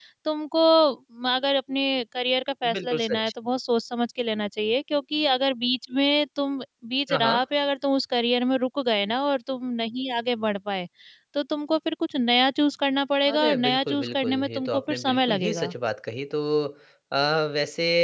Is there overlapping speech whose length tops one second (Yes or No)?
Yes